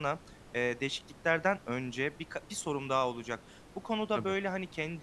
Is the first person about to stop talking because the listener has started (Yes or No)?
No